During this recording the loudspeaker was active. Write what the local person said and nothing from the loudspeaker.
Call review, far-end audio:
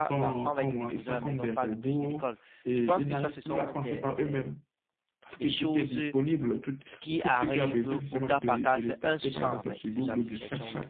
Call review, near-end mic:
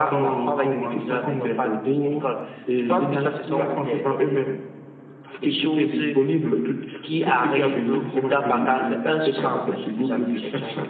none

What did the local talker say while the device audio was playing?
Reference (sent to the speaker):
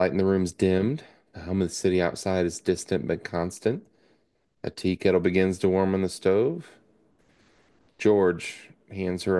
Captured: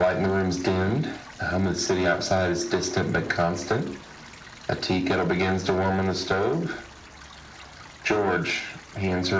none

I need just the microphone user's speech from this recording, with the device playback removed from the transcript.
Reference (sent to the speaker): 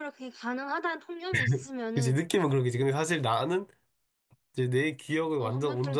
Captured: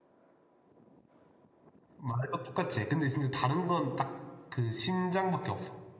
말도 똑같이 해. 근데 진짜 다른 건 딱 그 심장밖에 없어.

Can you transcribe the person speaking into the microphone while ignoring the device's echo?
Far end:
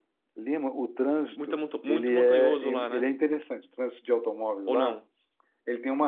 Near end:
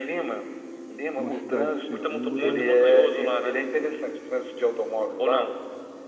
uma cidade segura,

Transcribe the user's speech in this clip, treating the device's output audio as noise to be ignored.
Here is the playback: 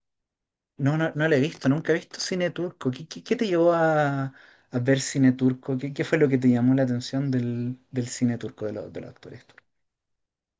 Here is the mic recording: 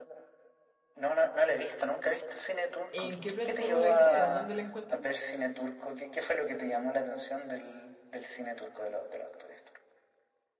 ¿En qué plataforma la viste o dónde la encuentro?

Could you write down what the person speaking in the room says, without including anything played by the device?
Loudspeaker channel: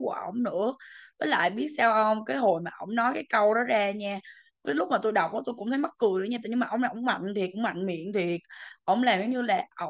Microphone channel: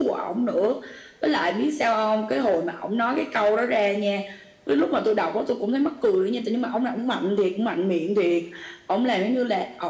none

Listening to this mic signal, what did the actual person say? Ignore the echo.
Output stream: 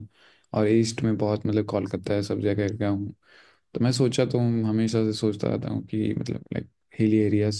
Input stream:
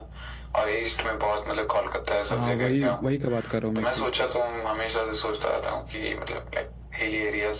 हाँ वही वही का बात कर रहा हूँ मैं कि

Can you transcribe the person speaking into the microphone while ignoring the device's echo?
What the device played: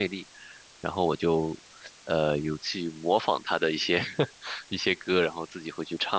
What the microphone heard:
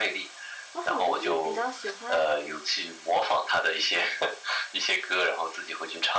我好像是比较喜欢

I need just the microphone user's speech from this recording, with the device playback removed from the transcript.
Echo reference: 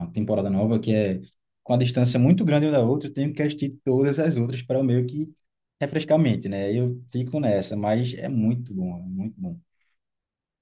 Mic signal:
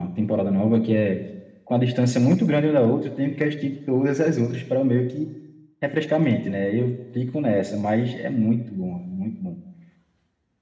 none

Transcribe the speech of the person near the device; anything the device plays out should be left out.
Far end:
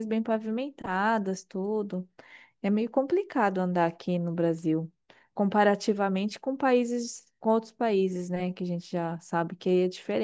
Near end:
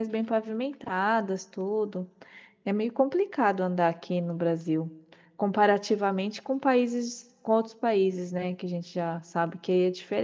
none

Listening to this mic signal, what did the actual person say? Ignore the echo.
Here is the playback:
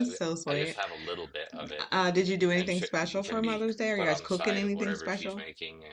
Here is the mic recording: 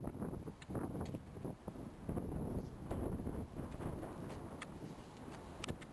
none

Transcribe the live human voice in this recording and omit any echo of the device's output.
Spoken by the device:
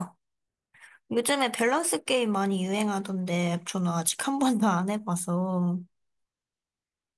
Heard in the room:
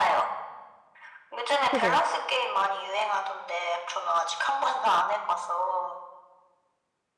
그죠?

